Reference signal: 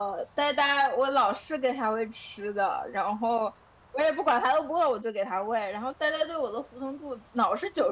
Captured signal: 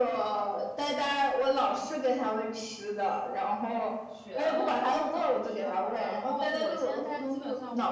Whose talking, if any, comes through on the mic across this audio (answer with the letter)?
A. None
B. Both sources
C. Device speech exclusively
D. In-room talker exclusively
B